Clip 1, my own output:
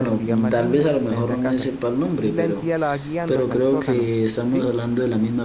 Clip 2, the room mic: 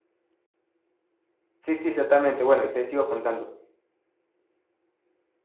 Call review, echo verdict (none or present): none